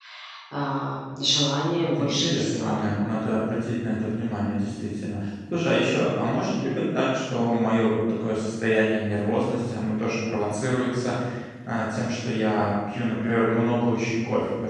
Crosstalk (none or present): present